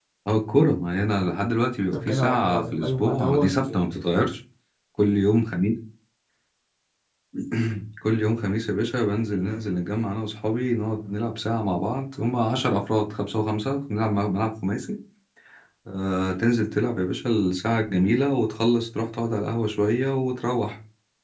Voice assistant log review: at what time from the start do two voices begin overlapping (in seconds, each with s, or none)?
1.9 s